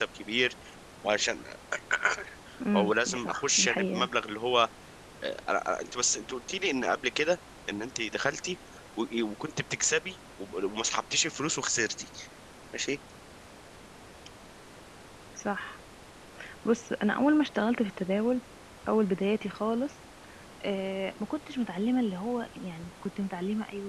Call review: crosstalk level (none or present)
present